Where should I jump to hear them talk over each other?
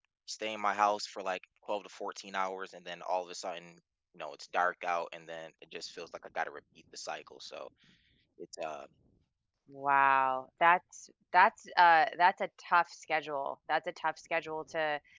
none

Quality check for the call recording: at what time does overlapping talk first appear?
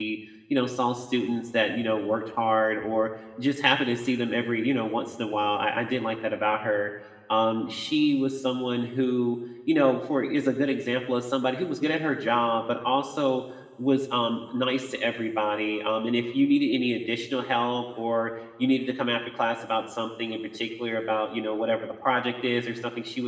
none

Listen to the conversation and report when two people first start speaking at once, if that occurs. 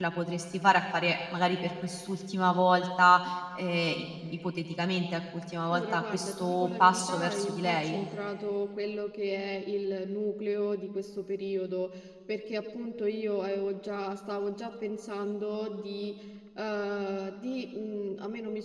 5.7 s

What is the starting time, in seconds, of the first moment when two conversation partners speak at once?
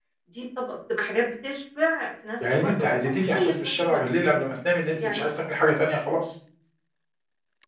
2.5 s

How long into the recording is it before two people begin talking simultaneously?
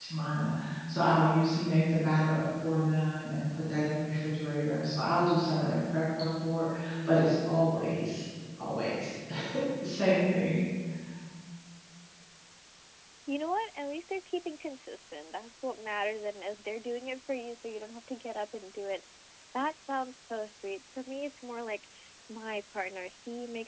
none

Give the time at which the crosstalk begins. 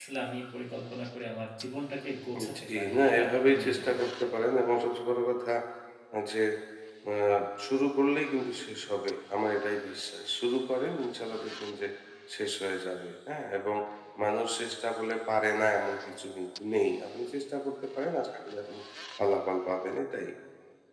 2.3 s

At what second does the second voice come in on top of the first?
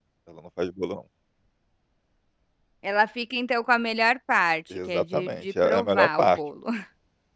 4.7 s

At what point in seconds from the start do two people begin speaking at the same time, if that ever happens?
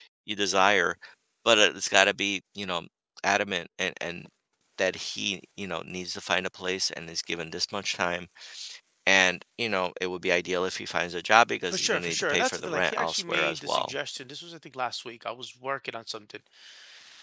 11.7 s

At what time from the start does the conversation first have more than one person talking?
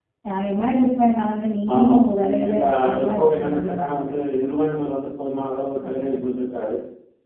1.8 s

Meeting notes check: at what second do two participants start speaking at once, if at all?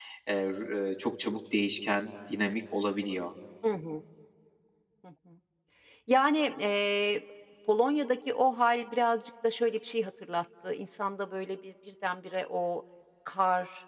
none

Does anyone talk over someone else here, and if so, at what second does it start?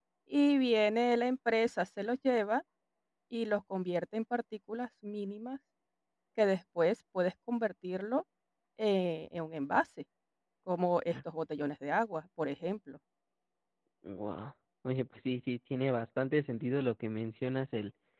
none

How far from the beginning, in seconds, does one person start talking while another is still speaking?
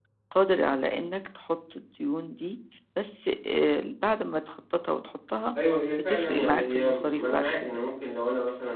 6.0 s

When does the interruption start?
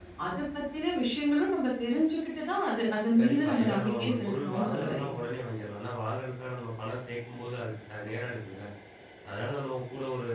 3.2 s

